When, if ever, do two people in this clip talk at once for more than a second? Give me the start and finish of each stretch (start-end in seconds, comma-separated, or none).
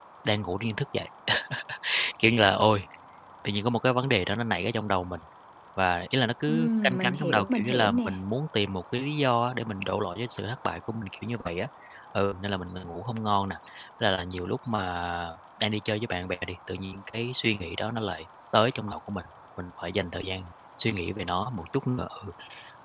6.5-8.2